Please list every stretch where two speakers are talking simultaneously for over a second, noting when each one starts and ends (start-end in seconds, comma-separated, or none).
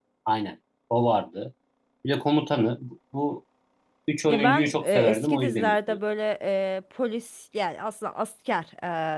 4.2-6.0